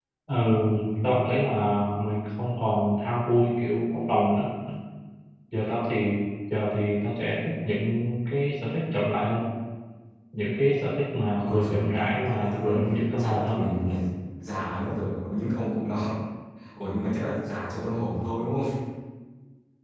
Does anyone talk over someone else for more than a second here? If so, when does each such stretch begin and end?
11.4-12.8

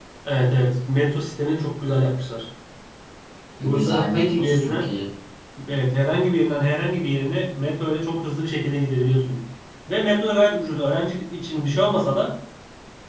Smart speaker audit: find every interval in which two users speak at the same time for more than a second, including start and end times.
3.6-4.9

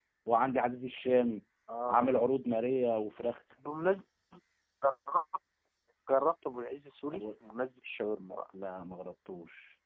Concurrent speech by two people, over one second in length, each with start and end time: none

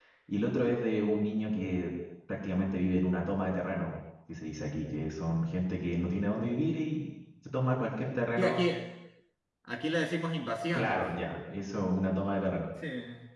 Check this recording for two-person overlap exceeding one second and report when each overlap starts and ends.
none

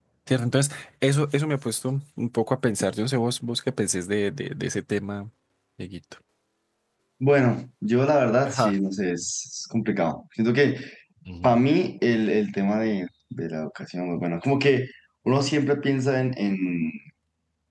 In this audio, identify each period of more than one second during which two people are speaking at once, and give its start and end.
none

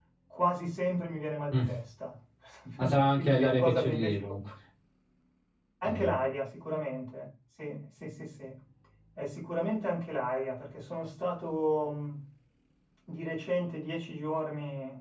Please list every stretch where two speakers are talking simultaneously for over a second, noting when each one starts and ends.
2.8-4.2

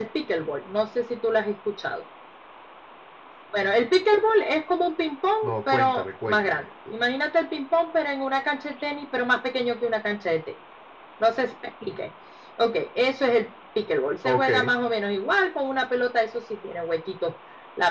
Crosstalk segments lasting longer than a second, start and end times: 5.4-6.6

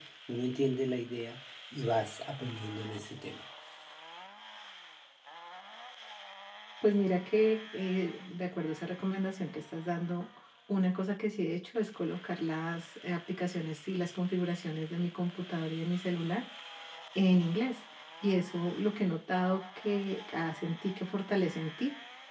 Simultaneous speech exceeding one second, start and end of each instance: none

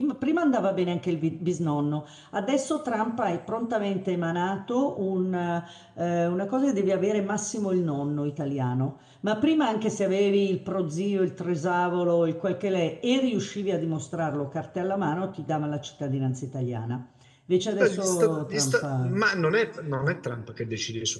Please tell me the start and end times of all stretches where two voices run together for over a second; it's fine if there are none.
17.8-19.2

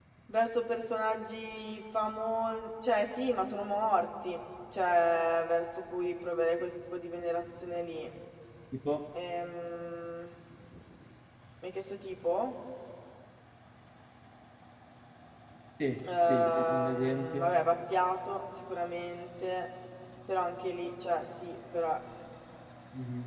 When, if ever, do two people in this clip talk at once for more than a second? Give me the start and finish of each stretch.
16.0-17.6

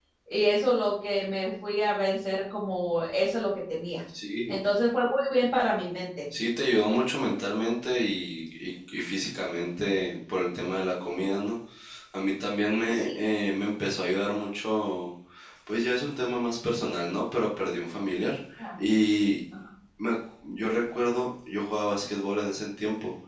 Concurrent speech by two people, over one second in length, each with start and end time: none

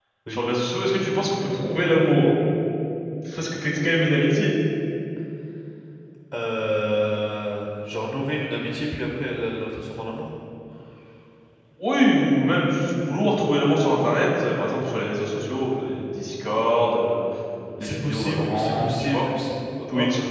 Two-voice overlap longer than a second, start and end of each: 17.8-19.3

